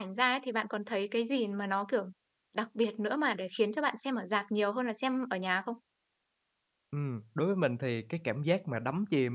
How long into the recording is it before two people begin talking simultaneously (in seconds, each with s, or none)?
none